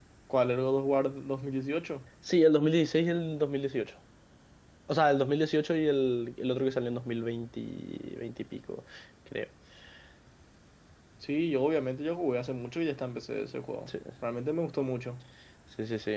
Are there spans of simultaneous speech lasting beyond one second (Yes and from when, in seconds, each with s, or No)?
No